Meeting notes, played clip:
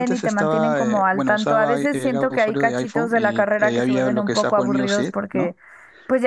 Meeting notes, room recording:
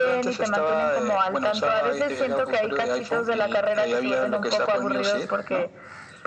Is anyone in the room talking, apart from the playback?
No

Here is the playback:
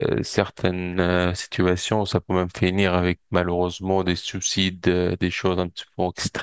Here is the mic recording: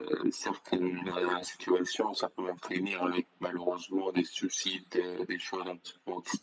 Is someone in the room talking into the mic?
No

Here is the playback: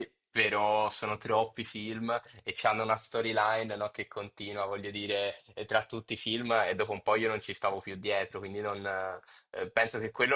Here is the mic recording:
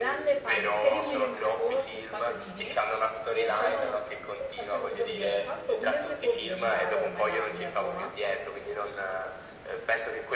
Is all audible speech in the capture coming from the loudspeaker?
No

